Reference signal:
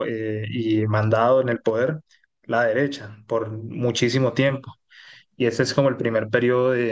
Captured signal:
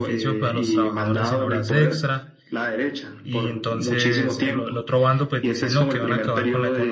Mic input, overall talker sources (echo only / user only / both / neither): both